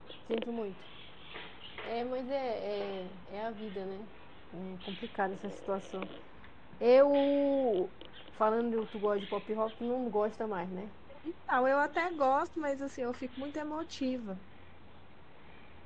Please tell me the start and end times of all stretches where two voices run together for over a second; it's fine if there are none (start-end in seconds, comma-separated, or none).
none